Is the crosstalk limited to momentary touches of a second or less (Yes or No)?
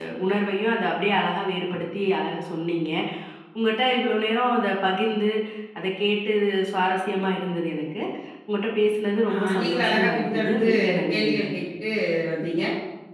No